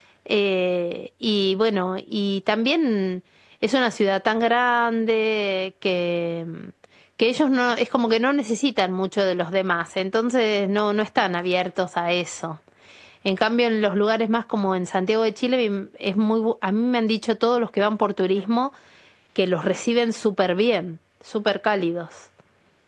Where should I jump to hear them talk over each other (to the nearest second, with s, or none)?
none